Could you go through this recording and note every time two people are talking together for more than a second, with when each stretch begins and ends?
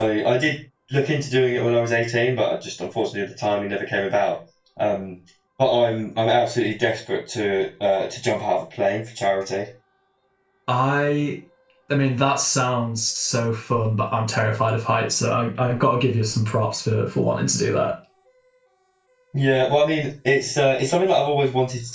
none

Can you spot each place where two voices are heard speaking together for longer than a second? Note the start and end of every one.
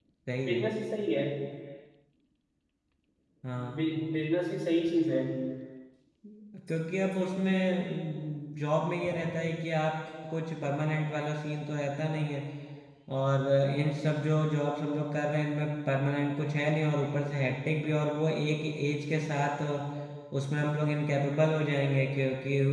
none

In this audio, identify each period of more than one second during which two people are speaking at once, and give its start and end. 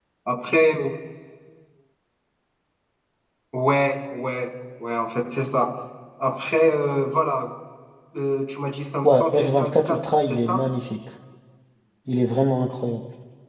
9.0-10.6

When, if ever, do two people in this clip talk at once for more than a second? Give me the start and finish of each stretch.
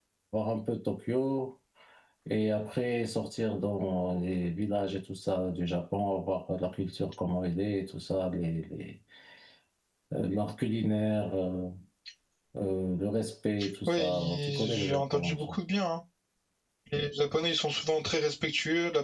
13.9-15.4

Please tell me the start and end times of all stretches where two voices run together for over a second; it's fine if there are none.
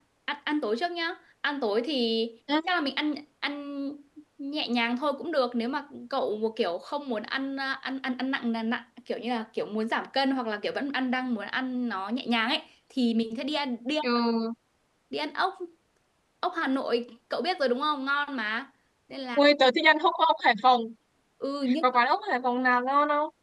none

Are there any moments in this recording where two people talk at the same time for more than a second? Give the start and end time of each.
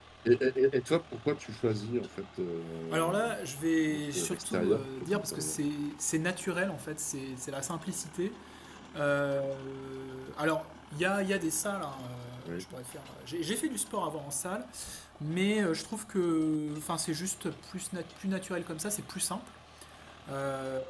3.9-5.6

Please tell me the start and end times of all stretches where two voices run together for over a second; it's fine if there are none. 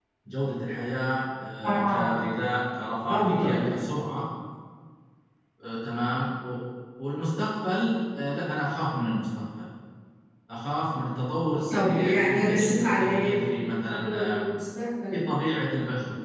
11.7-14.4

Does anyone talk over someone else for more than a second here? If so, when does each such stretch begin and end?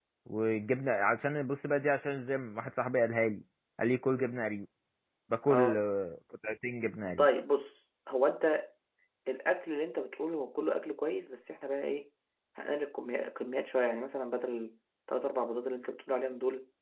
none

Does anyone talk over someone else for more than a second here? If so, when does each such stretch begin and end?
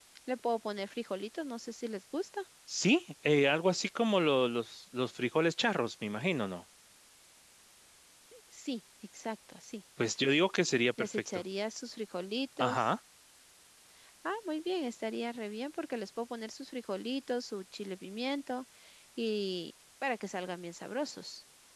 none

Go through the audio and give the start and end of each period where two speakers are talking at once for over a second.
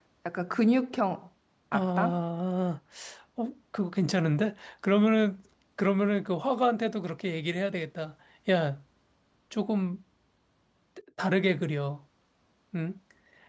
none

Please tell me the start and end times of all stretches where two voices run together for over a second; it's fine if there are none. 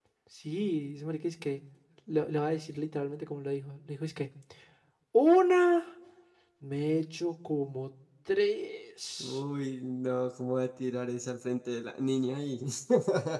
none

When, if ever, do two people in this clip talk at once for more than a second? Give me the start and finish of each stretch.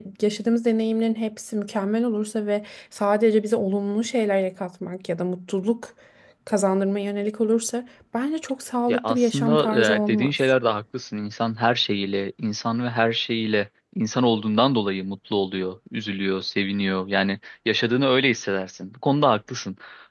8.9-10.3

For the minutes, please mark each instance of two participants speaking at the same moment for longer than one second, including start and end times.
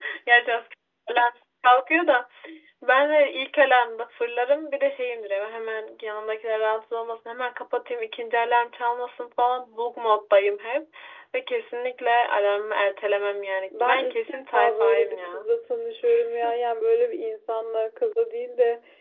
13.7-15.5

